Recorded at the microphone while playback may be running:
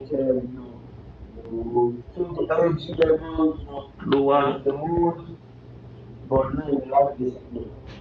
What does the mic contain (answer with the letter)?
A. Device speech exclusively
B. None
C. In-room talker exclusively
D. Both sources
D